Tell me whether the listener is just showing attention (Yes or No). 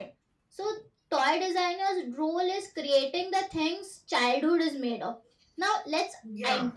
Yes